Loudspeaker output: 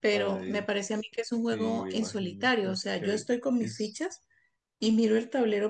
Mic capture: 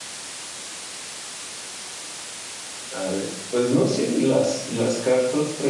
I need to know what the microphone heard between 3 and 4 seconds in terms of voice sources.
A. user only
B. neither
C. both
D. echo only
A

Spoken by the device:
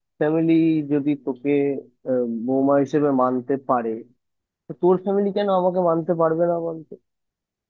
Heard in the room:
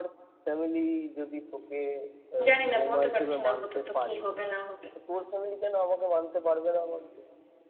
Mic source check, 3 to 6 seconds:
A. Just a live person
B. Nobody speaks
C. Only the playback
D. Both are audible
D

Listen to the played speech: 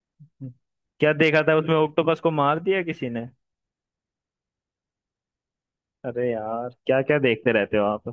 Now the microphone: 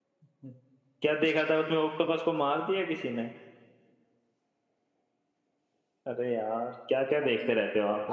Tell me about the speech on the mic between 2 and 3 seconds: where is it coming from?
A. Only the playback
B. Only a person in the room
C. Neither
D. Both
A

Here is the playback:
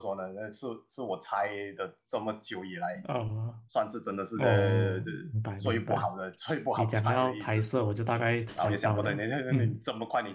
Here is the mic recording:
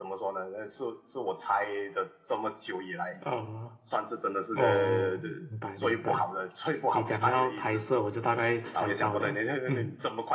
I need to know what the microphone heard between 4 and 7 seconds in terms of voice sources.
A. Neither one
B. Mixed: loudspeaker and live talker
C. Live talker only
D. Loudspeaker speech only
D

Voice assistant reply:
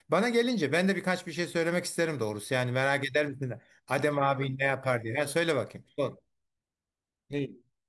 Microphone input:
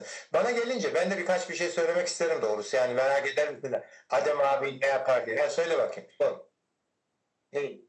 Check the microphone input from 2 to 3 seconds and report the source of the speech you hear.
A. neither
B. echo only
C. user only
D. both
B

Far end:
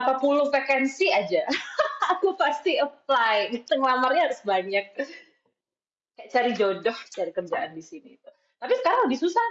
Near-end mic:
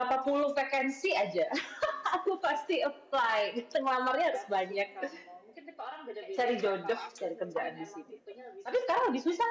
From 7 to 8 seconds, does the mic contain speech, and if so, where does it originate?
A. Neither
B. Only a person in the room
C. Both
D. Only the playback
C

